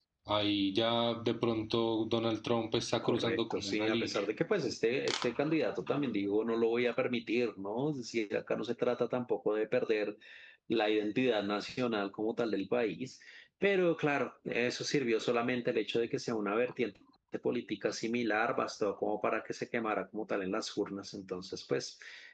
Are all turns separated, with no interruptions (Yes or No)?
No